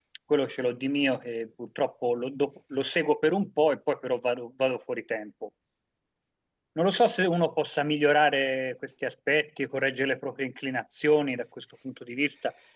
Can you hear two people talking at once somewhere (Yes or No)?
No